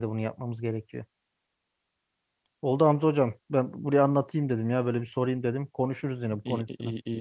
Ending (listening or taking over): taking over